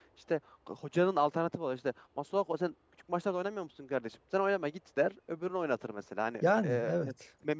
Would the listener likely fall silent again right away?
Yes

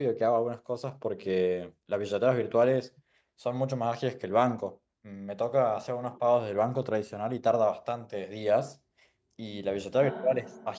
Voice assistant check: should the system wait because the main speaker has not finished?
Yes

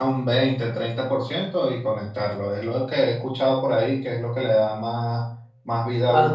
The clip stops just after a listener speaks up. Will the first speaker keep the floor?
No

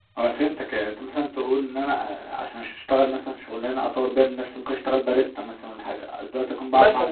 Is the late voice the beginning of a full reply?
Yes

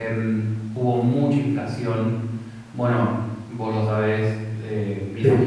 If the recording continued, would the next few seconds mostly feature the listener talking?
No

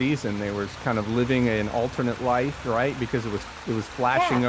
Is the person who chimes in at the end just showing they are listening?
Yes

